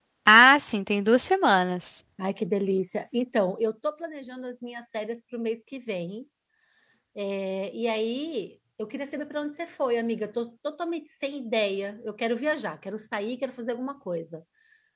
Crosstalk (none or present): none